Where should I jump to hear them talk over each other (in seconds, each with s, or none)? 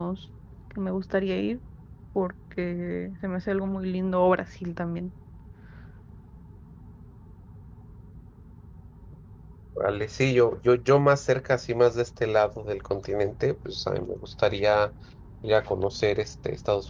none